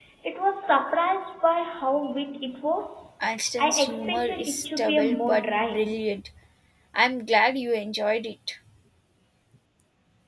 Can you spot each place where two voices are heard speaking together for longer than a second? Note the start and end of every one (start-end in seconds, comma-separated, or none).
3.6-5.8